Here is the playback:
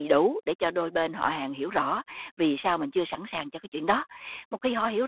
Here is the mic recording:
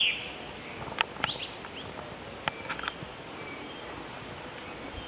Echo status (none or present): none